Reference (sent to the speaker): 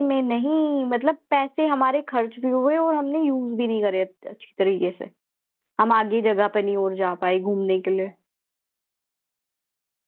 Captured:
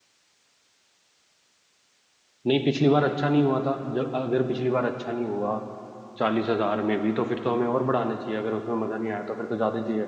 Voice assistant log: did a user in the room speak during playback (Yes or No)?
Yes